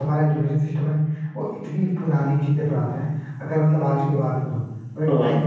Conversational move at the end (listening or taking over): listening